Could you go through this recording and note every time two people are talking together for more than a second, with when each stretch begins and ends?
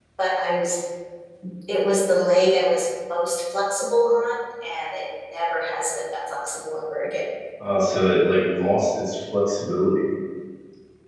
none

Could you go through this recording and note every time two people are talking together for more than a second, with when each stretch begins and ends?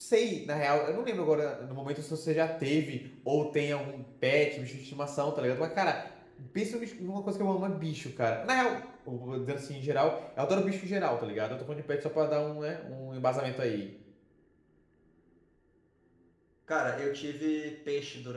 none

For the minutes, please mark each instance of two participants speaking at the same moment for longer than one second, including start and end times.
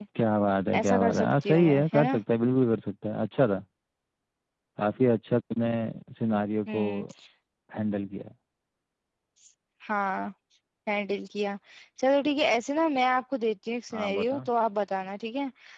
0.7-2.2

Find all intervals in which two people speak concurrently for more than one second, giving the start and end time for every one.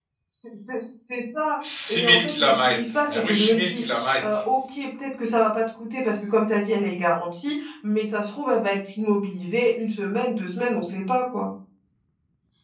1.9-3.8

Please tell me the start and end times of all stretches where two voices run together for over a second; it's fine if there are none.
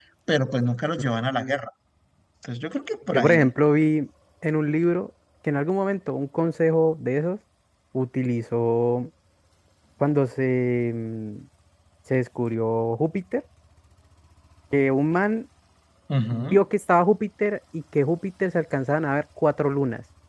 none

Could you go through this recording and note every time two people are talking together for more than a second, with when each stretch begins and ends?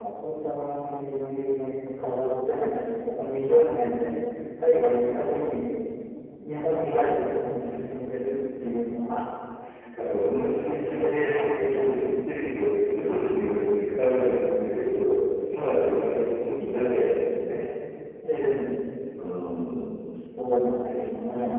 10.4-12.0

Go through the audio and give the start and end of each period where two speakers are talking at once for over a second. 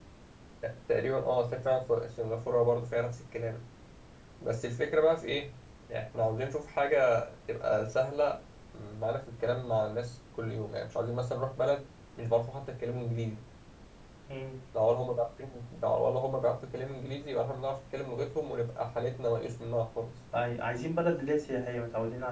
none

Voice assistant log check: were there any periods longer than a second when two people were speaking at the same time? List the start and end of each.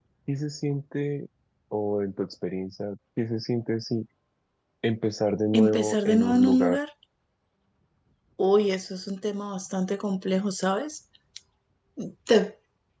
5.5-6.8

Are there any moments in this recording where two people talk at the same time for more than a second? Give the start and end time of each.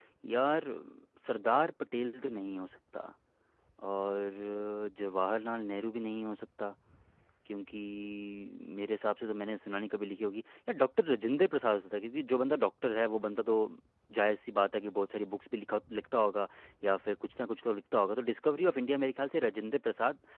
none

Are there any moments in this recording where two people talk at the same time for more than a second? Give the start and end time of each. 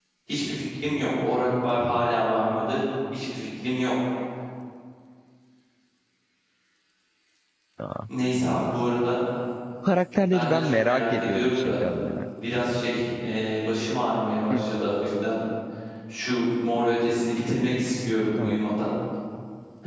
10.3-11.8

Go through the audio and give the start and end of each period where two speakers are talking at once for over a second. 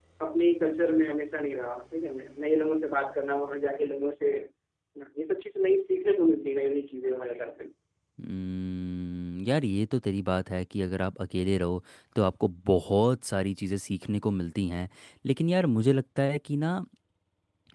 none

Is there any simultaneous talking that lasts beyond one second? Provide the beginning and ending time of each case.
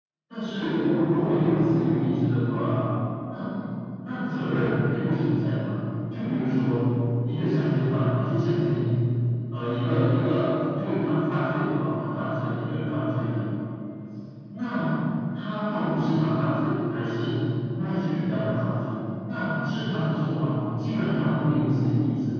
0.6-1.8

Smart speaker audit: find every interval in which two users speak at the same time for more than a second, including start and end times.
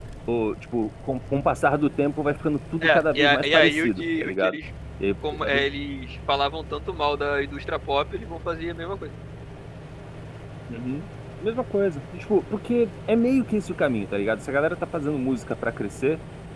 2.8-4.6

